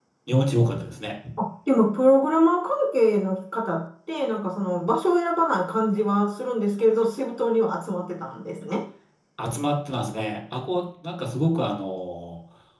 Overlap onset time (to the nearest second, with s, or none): none